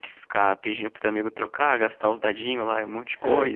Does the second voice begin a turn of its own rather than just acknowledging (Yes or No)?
No